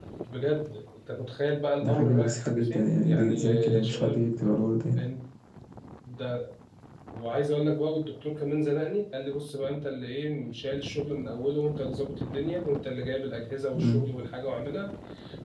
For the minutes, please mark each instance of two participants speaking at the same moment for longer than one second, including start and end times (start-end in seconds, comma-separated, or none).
1.8-4.2